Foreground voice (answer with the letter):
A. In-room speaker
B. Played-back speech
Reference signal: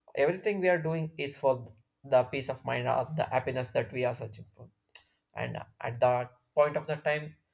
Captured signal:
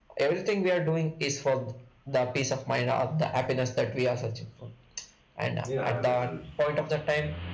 B